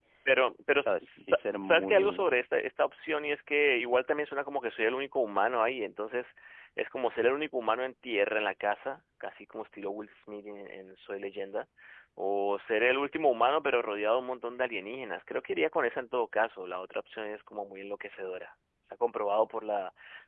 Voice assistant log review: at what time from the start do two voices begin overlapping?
0.8 s

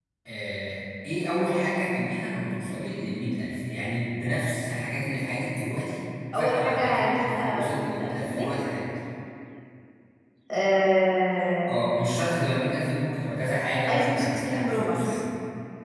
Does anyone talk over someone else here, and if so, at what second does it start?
6.3 s

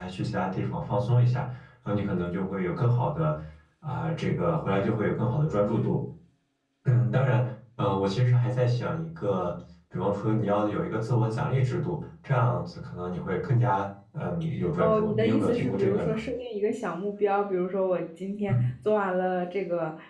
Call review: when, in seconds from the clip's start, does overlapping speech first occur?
14.8 s

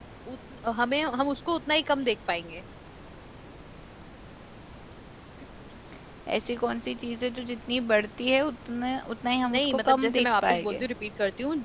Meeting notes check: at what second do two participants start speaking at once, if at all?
9.4 s

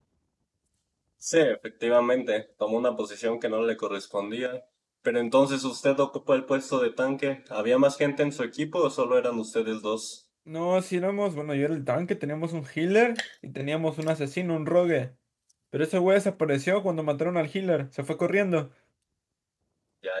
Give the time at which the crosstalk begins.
none

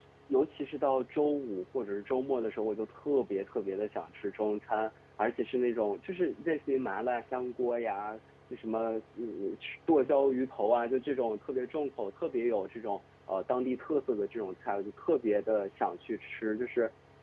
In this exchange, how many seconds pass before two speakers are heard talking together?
none

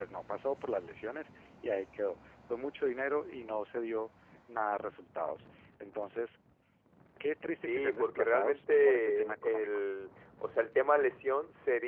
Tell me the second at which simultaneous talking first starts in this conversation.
7.7 s

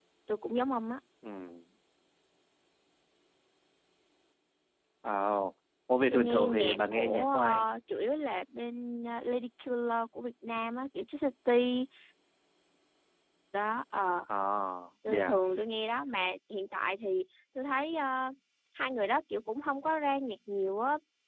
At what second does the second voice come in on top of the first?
6.1 s

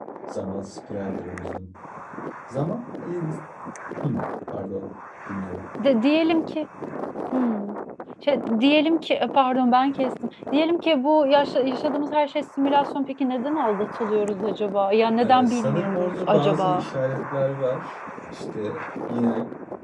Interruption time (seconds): 15.2 s

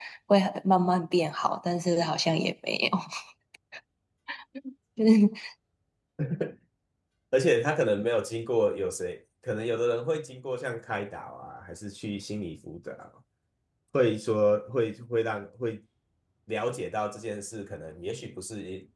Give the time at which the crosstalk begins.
none

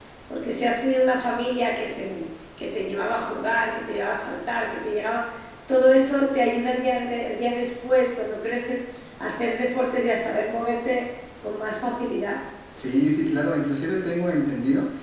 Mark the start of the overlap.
none

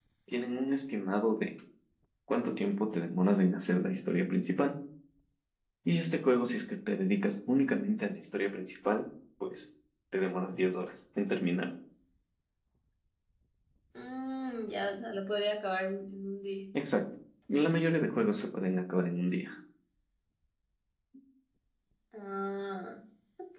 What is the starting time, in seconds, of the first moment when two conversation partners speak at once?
none

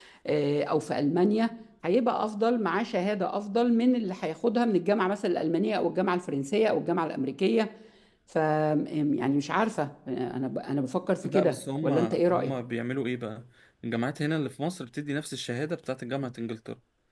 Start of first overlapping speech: 11.2 s

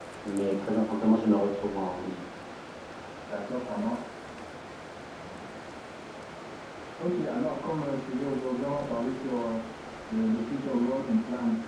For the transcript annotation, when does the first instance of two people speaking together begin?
none

